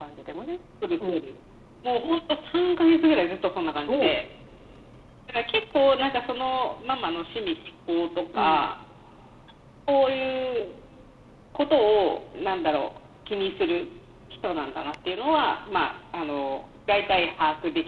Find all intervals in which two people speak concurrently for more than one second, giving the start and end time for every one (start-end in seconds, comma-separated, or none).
none